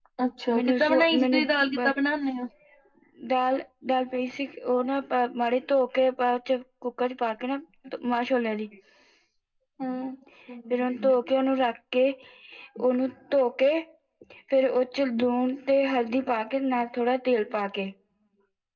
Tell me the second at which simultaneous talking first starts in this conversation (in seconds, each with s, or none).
0.6 s